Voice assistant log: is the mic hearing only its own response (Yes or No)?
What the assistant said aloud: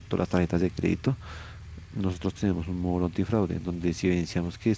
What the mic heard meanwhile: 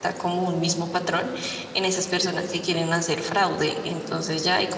No